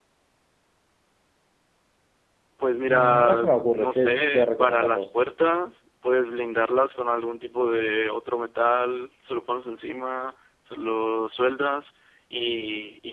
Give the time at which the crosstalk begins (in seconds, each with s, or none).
2.9 s